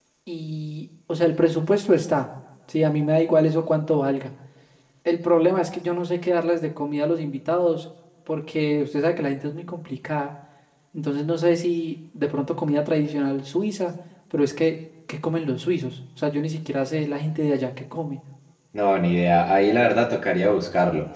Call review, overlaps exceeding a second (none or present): none